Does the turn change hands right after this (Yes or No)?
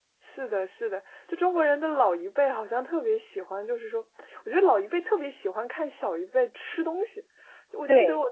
No